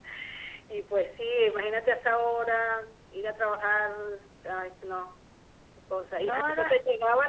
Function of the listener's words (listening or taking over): listening